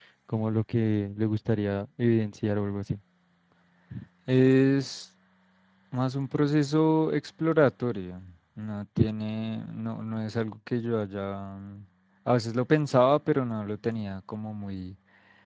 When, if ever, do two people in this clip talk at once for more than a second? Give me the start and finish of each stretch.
none

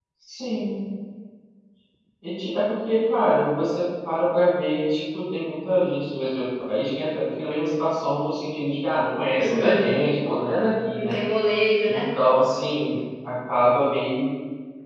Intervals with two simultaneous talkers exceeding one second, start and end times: none

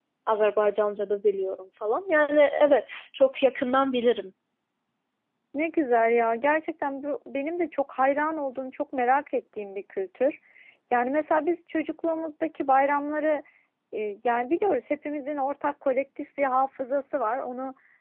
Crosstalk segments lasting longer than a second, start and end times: none

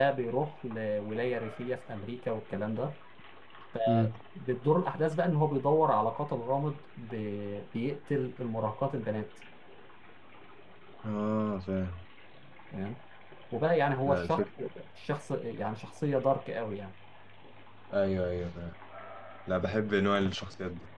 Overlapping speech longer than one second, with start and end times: none

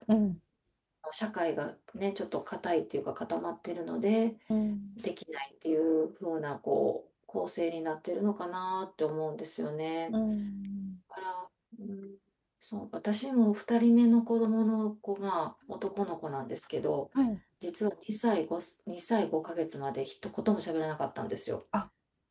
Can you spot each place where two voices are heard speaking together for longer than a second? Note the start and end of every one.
none

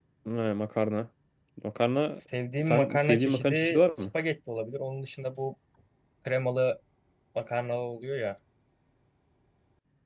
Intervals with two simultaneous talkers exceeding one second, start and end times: 2.6-4.0

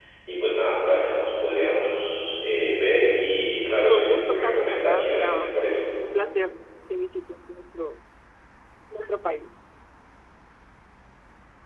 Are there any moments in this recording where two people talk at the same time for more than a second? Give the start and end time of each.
3.9-5.8

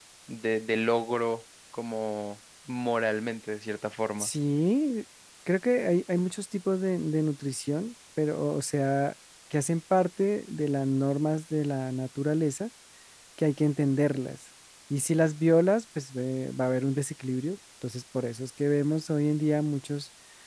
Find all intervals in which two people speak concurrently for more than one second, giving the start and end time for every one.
none

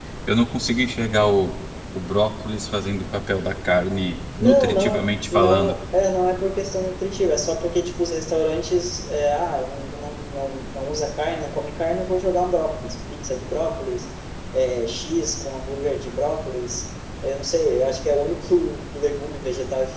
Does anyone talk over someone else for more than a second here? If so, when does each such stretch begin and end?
4.4-5.8

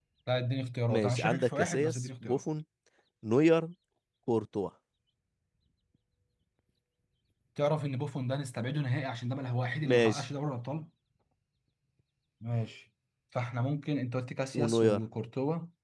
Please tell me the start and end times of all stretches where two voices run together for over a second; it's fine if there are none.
0.9-2.4

